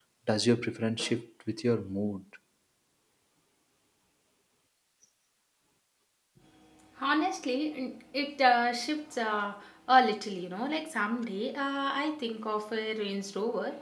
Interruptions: none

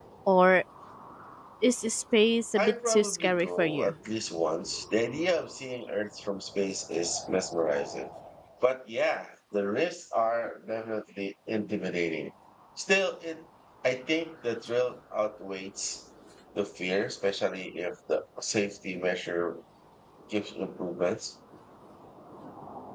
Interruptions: present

